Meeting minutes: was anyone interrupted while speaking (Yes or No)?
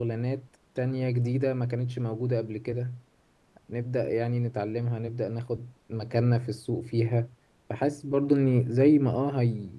No